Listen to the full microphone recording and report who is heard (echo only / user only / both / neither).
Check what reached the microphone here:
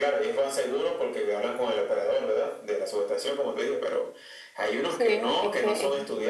both